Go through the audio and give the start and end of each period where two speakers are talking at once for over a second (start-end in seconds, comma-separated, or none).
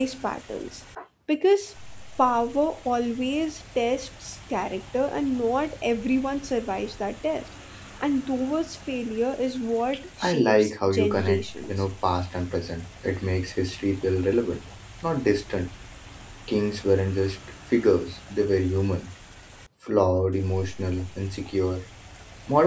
10.2-11.7